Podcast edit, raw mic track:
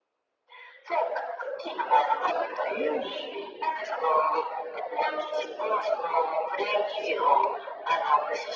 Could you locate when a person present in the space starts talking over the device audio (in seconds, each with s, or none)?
2.7 s